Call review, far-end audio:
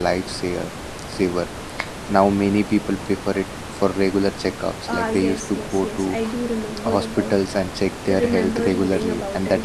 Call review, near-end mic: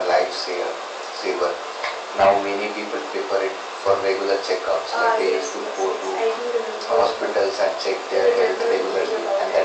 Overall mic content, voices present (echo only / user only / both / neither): echo only